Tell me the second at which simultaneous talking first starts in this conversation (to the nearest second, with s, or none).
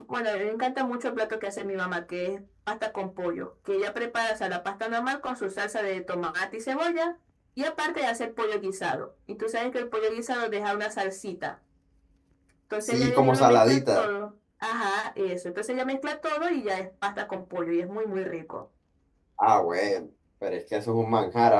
13 s